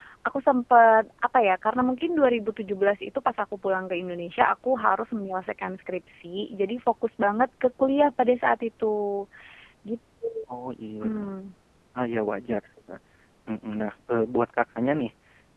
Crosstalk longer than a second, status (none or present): none